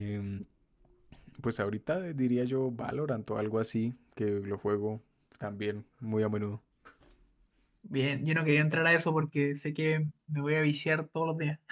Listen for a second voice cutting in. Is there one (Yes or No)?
No